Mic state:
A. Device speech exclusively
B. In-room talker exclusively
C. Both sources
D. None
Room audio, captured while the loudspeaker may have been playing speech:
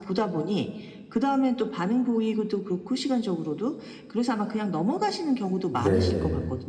C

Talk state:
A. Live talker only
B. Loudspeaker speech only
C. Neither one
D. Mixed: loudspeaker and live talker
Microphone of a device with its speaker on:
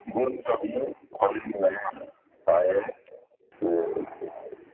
B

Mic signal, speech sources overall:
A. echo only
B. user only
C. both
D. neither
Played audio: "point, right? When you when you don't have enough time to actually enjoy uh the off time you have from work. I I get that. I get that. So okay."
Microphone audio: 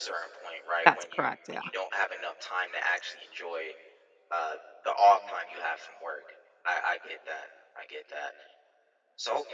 C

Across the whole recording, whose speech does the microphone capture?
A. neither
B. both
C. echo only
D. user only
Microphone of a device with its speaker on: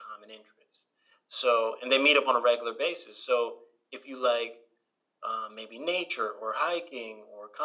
C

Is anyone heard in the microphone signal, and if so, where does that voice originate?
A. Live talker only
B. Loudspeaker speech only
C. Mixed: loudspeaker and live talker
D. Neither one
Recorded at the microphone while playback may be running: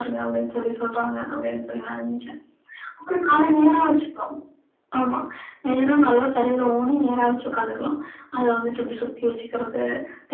B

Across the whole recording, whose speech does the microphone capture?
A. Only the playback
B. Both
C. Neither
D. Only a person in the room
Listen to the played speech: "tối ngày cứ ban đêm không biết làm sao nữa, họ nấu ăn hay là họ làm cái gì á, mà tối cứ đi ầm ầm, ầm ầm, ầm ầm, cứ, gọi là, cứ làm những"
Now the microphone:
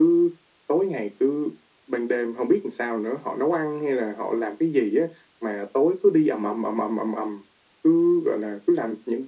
A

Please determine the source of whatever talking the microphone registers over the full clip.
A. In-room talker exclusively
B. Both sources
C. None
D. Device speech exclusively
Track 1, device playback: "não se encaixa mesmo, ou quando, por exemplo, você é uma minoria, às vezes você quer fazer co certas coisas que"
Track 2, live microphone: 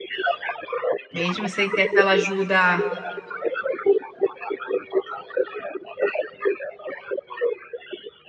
B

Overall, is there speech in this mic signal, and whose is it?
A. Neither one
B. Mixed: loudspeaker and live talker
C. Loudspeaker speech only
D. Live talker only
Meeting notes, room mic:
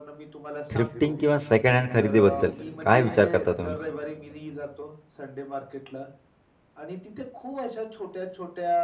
B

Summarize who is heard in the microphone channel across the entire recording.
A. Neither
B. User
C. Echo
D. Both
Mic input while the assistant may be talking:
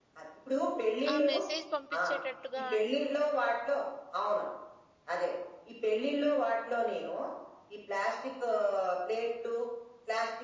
D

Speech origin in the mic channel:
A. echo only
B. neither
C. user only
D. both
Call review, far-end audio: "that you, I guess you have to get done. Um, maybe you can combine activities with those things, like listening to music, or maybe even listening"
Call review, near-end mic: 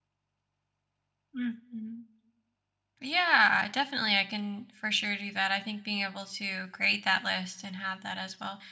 C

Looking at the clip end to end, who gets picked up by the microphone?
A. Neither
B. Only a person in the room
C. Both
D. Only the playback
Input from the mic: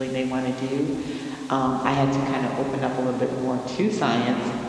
B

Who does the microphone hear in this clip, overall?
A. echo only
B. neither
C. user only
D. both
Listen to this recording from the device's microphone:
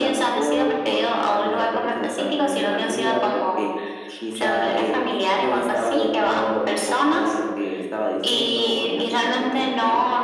A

